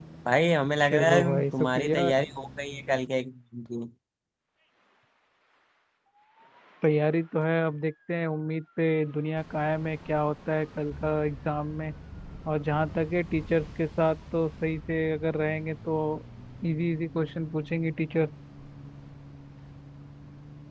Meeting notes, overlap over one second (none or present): present